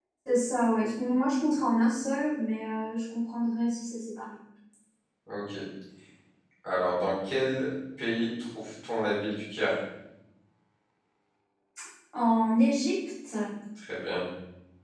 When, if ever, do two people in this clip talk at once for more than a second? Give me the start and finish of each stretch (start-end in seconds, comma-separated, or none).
none